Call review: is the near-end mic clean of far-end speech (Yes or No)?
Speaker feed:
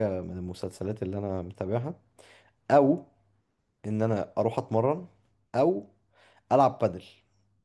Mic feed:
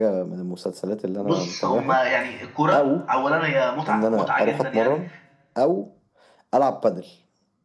No